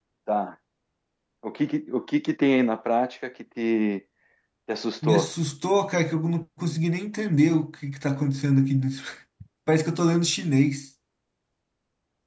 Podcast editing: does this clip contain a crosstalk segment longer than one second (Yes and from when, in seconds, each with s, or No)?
No